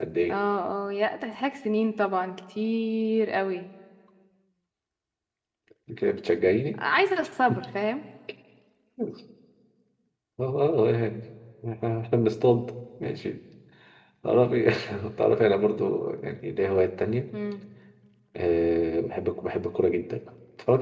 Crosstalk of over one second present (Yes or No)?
No